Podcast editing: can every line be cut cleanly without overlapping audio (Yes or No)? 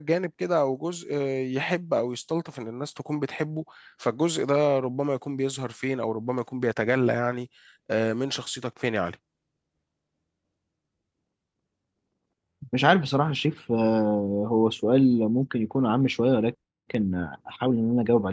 Yes